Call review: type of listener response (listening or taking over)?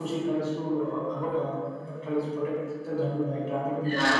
listening